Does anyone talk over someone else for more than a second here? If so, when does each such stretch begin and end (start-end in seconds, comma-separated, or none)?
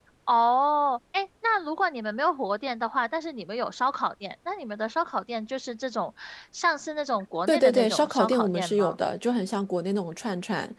7.5-9.0